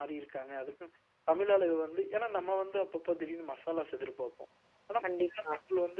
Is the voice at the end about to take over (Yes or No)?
No